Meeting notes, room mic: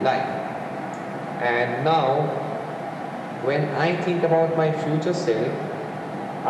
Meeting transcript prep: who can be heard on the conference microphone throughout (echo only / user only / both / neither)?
echo only